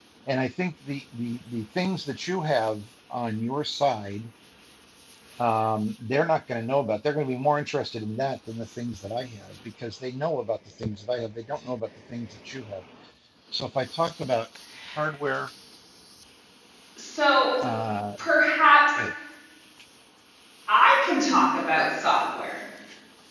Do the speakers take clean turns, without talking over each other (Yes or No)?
Yes